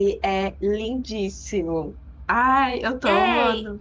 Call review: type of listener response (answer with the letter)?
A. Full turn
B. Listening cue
A